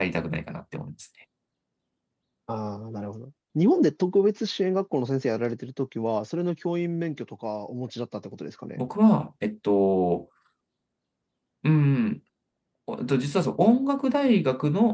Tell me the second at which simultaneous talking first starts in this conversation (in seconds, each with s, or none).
none